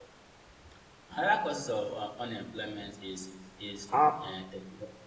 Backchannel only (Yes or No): Yes